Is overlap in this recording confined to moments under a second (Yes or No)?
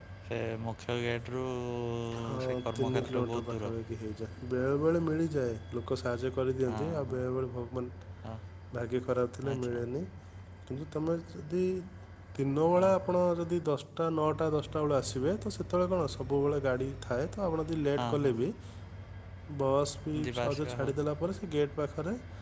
No